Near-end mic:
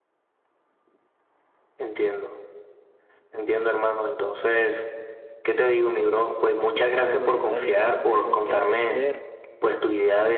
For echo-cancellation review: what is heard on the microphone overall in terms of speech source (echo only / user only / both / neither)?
both